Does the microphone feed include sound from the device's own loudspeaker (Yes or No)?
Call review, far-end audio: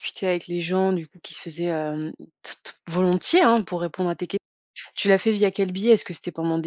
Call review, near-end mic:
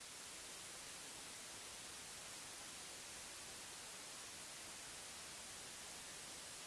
No